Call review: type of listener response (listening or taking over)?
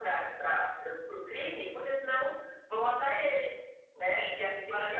taking over